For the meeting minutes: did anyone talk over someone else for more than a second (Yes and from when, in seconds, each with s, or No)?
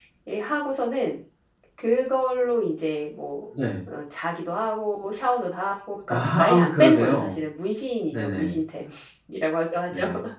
Yes, from 6.1 s